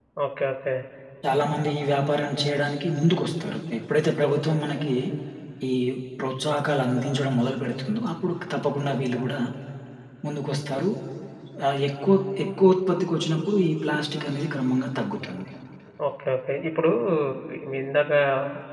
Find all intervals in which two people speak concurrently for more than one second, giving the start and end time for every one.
none

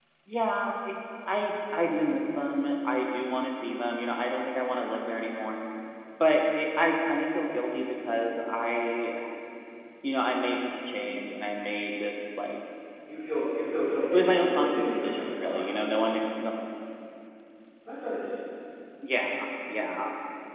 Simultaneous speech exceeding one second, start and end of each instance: 14.1-15.8

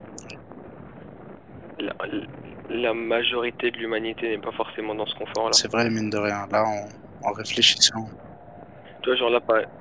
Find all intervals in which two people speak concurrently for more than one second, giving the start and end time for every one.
none

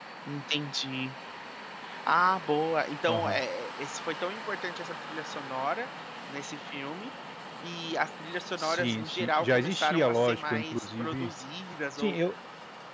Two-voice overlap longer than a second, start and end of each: 8.6-11.3

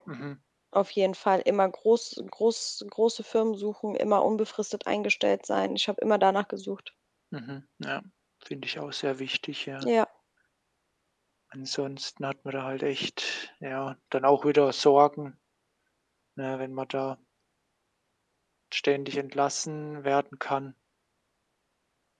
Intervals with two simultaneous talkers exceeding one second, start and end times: none

